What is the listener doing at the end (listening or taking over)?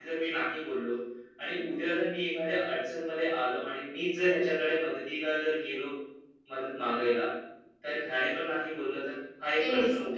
taking over